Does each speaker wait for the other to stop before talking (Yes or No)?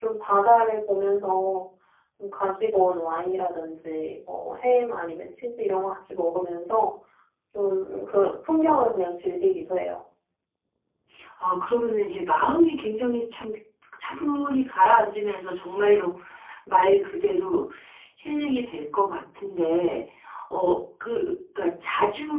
Yes